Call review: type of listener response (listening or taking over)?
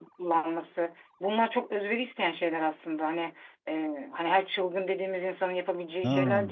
listening